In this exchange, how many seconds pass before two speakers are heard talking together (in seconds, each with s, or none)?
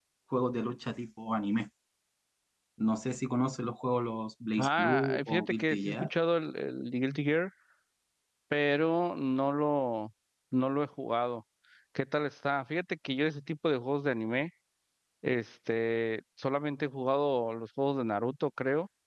4.6 s